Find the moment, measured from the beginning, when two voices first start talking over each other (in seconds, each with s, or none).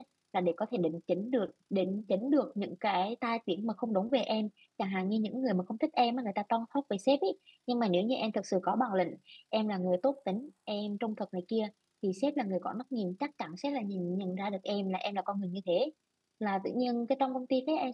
none